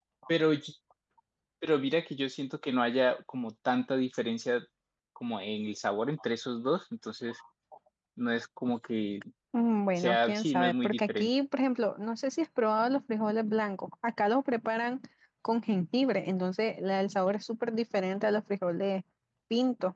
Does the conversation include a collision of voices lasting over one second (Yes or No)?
Yes